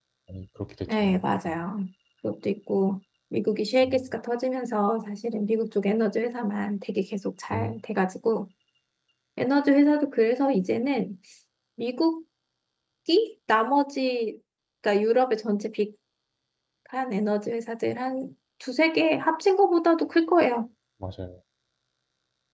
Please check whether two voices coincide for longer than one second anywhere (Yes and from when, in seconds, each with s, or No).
No